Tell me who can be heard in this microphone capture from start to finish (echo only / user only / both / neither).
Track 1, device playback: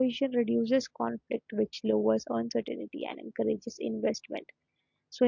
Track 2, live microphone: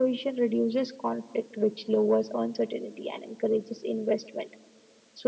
echo only